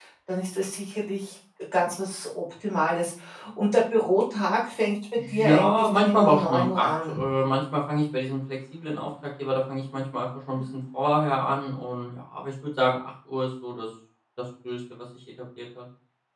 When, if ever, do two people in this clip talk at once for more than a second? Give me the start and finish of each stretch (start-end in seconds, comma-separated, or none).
5.3-7.2